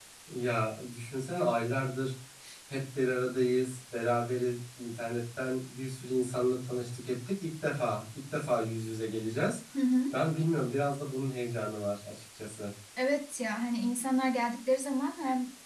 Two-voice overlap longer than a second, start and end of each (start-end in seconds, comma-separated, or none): none